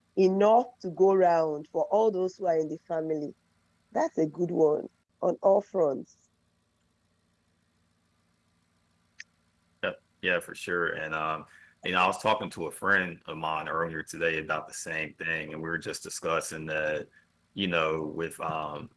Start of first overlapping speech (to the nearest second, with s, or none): none